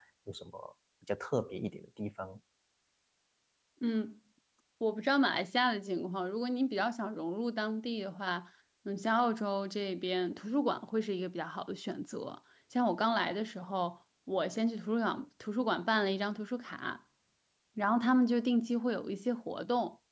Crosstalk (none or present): none